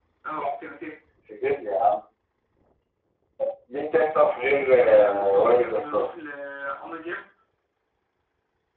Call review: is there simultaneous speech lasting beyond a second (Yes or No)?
Yes